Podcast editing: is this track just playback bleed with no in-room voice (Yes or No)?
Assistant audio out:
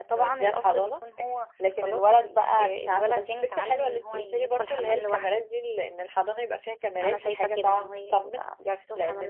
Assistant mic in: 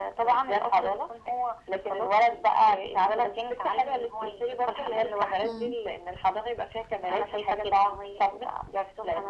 No